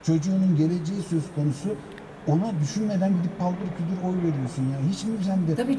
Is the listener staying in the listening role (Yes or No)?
No